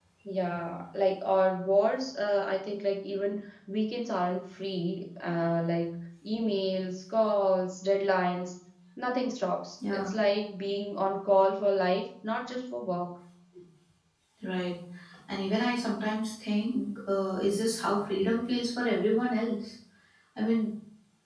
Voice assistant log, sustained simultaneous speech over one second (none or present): none